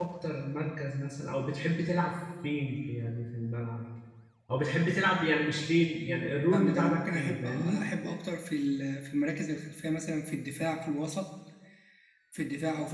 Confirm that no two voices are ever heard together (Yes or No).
No